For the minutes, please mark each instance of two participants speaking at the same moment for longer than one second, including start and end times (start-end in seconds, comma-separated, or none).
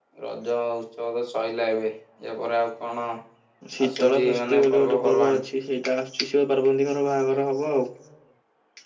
4.0-5.4